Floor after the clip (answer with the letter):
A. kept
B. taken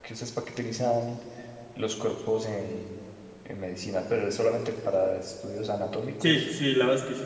B